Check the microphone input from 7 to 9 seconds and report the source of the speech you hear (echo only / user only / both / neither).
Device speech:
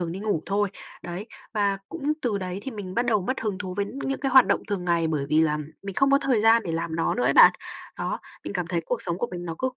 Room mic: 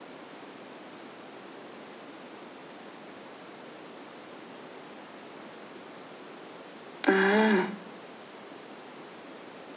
user only